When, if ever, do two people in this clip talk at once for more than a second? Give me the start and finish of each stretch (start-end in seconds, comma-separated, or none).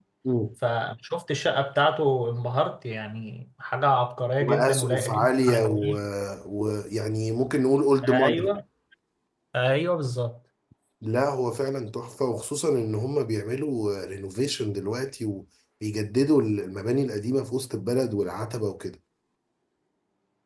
4.4-5.8